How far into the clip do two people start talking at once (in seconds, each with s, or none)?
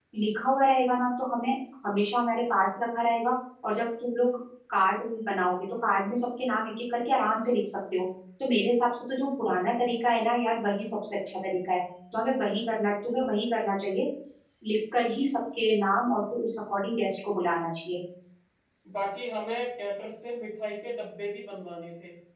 none